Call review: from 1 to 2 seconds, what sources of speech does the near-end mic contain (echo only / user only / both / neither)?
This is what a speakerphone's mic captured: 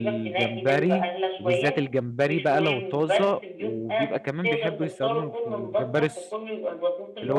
both